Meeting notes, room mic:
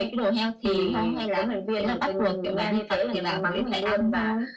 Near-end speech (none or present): none